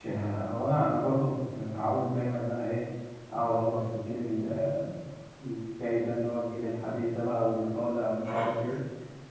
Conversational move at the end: listening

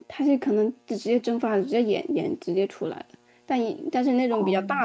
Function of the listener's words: listening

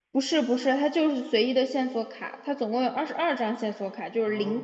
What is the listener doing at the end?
listening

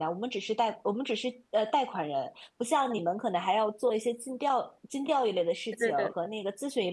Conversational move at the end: listening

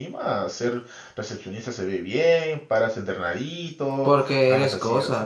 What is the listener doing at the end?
taking over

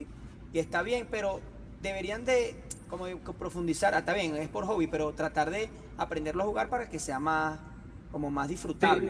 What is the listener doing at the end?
taking over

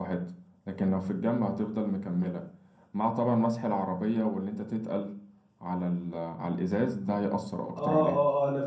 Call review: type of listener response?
taking over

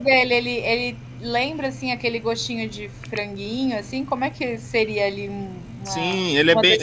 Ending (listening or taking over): taking over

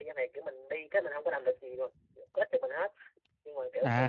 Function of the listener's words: taking over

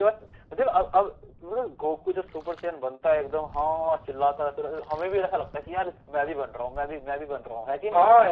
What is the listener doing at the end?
taking over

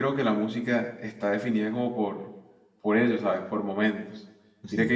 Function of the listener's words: listening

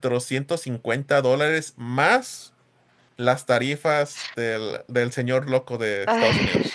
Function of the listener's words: taking over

